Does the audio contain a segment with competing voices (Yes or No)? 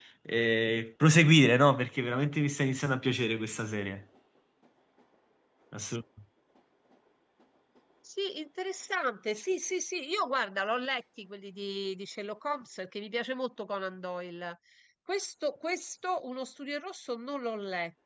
No